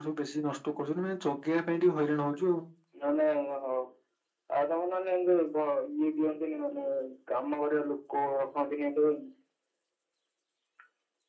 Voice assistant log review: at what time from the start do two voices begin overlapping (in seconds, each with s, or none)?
none